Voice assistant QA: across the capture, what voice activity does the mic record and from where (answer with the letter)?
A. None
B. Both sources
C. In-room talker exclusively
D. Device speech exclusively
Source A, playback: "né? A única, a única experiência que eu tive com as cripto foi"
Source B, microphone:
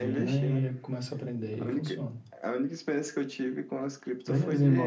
B